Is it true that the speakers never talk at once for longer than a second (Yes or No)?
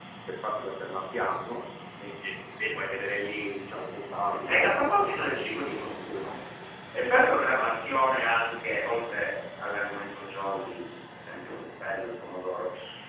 No